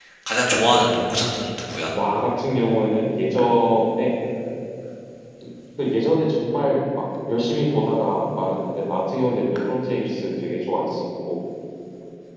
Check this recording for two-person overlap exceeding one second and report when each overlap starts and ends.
none

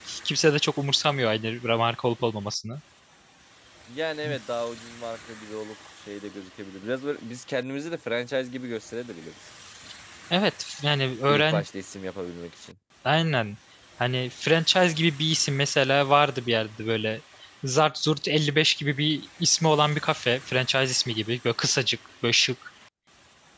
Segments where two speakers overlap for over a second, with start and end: none

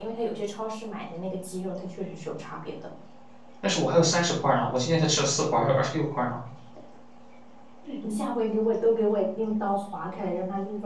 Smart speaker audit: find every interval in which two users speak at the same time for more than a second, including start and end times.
none

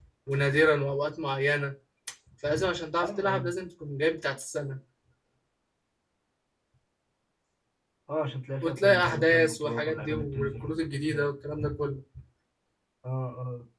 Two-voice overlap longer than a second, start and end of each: 8.6-11.3

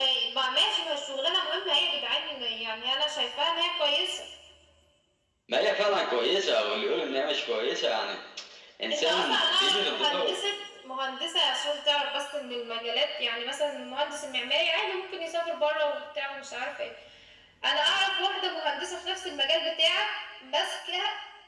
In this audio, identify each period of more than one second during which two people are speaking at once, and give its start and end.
8.9-10.3

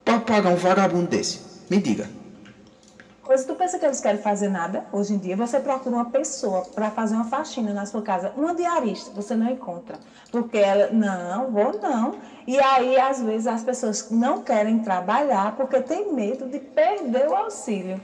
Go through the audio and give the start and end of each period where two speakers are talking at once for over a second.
none

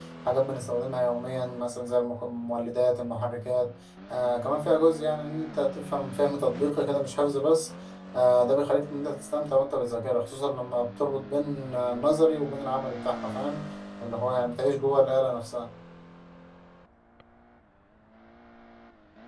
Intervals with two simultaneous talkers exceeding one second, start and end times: none

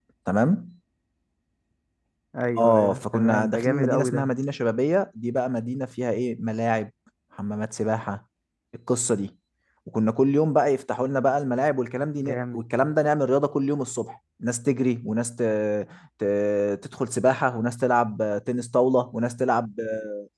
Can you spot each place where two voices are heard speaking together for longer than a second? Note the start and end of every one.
2.6-4.3

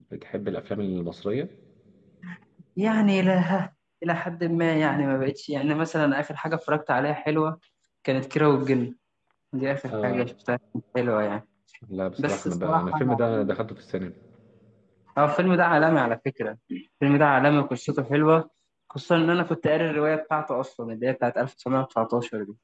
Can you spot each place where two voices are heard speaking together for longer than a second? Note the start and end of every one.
12.2-13.6

